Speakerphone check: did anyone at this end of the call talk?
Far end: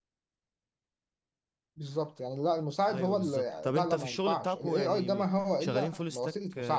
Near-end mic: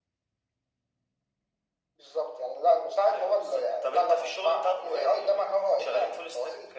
No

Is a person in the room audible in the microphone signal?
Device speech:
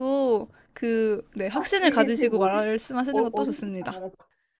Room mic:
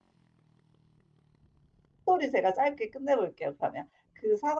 Yes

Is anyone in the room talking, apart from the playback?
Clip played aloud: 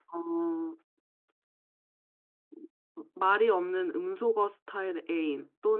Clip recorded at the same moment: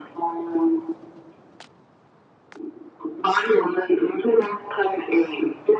No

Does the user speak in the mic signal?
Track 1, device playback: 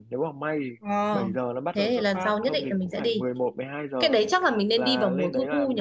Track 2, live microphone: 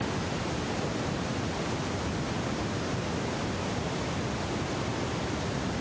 No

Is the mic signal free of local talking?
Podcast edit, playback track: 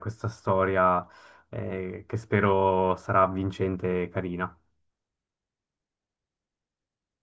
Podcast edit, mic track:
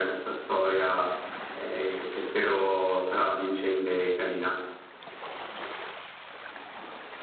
Yes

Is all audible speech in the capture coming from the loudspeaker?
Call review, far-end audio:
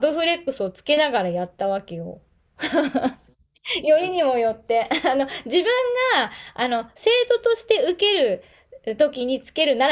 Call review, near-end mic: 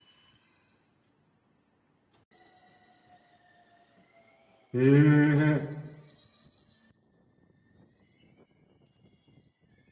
No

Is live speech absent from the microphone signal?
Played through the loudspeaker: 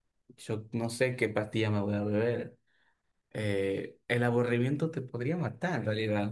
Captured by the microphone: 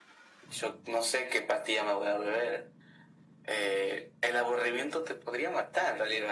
Yes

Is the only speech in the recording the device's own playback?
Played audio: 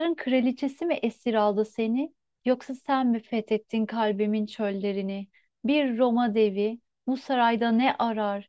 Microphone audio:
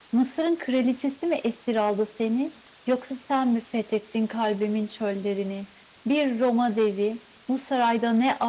Yes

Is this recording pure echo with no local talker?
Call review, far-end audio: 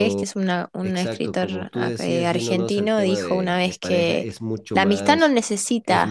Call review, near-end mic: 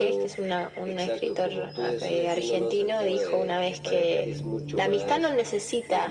Yes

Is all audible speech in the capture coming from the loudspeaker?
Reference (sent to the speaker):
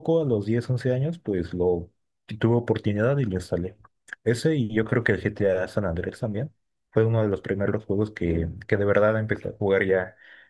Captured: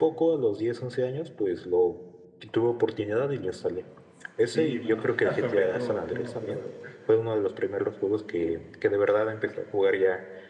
No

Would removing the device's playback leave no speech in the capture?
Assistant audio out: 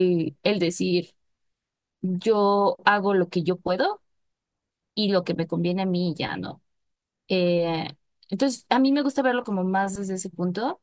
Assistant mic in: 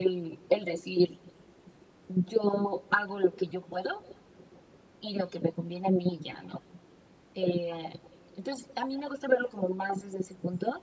Yes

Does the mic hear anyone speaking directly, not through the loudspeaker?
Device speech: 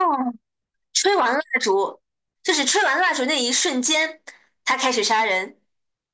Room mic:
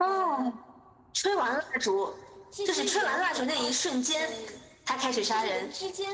Yes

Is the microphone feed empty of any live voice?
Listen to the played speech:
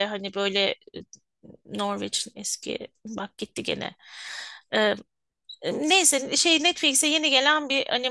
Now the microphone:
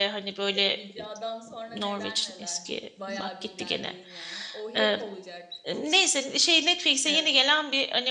No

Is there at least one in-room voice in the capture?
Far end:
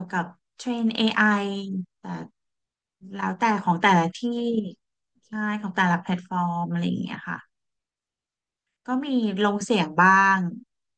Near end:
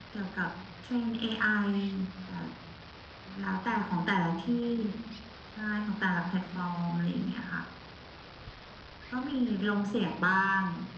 No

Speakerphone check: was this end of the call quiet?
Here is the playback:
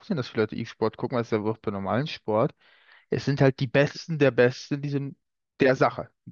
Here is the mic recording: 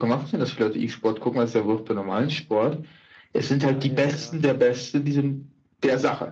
No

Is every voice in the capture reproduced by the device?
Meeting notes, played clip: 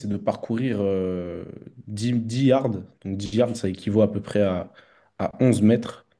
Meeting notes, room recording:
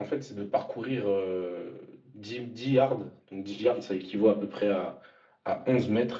Yes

